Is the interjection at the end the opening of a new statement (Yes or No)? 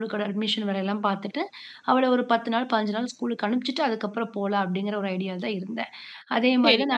Yes